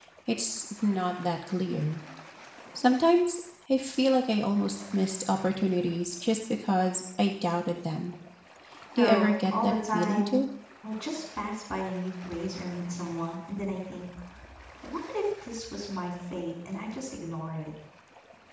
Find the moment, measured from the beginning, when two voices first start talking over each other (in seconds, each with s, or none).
9.0 s